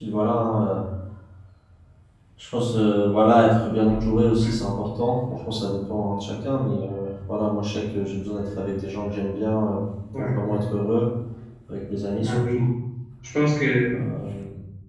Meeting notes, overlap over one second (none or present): none